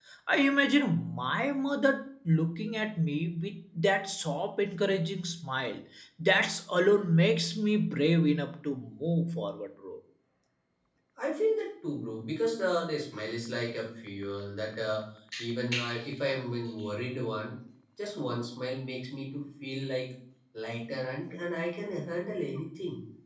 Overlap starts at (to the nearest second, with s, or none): none